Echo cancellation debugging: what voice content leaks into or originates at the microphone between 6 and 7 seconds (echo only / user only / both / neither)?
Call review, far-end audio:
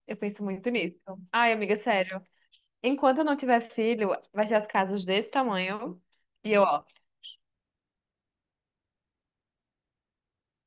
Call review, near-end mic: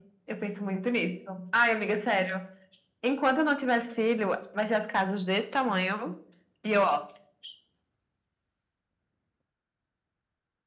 echo only